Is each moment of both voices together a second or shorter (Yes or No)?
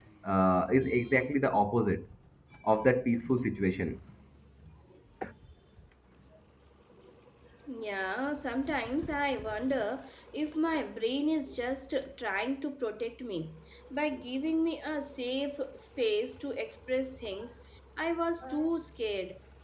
Yes